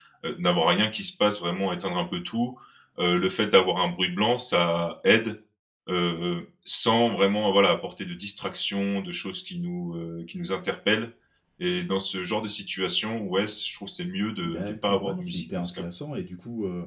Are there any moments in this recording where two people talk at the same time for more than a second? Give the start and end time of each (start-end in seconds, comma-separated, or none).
14.4-15.8